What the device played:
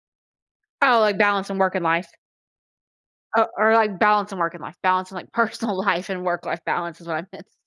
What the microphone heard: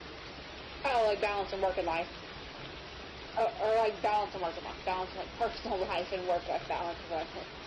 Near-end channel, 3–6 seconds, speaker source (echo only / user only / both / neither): echo only